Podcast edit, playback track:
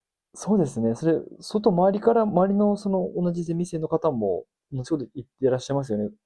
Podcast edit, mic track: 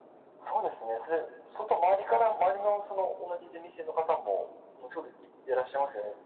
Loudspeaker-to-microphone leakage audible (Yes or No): Yes